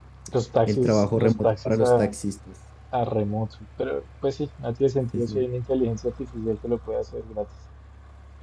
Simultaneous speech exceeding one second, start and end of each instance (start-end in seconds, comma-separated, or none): 0.7-2.1